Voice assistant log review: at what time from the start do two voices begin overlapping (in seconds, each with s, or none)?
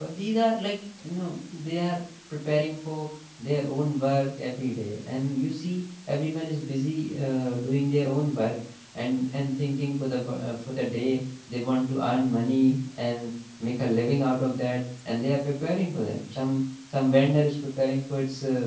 none